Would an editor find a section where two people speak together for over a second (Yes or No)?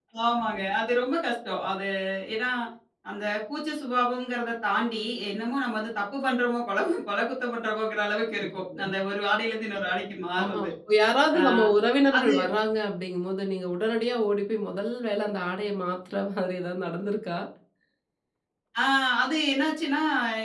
No